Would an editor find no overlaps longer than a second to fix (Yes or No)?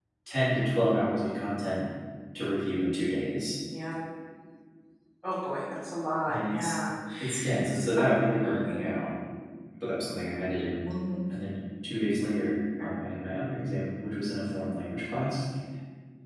Yes